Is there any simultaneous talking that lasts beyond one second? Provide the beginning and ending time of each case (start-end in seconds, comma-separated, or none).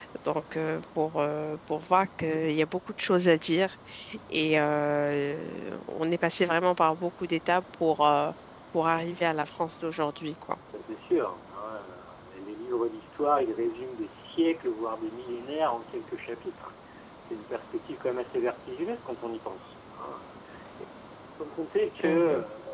none